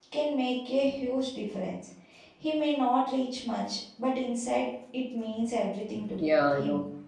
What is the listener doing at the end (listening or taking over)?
taking over